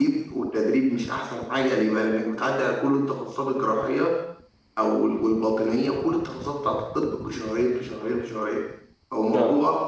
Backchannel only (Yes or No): Yes